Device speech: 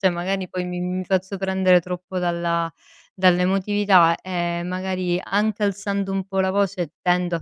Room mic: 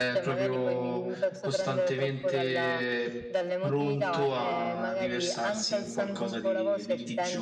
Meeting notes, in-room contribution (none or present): present